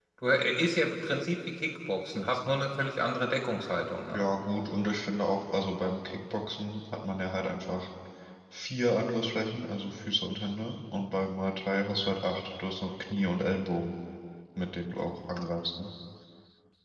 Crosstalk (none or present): none